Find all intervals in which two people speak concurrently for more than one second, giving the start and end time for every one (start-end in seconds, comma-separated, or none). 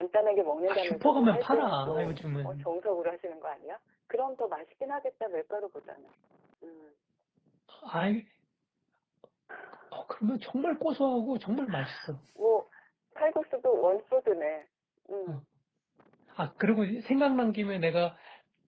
0.7-2.7